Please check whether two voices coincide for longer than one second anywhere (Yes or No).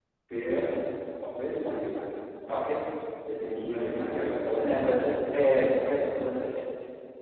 No